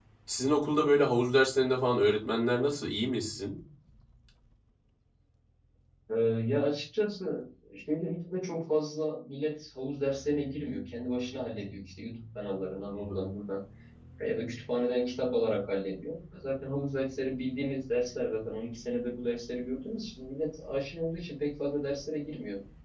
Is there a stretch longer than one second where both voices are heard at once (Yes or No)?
No